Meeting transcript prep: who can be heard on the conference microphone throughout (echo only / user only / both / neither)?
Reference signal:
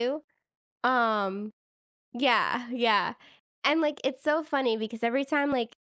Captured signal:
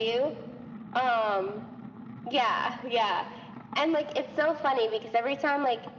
echo only